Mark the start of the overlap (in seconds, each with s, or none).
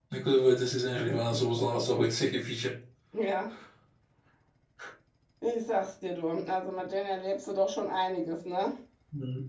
none